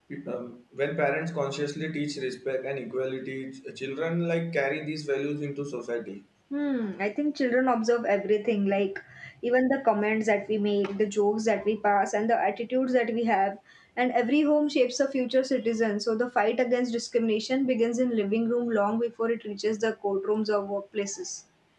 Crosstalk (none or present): none